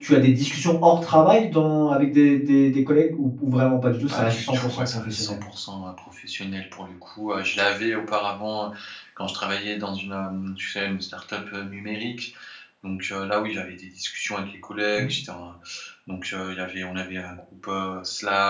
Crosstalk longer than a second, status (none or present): present